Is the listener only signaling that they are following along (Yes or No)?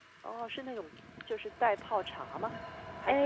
No